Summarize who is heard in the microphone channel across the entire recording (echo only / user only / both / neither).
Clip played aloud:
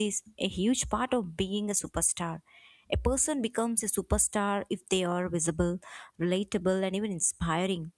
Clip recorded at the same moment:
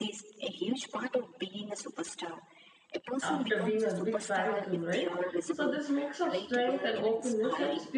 both